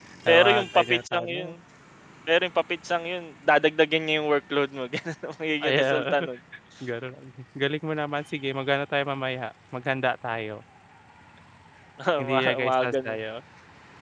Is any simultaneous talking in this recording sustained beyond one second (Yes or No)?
Yes